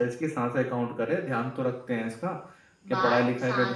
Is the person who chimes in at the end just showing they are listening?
No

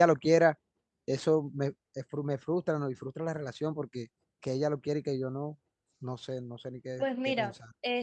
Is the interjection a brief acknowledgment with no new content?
No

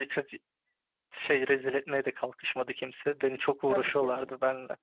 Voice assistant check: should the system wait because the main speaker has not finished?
No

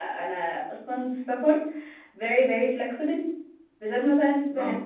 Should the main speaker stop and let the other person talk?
No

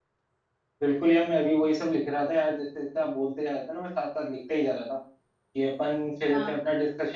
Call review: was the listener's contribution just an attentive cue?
Yes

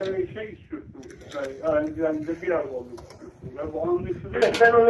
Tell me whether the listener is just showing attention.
No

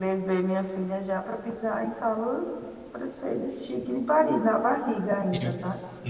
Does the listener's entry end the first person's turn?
Yes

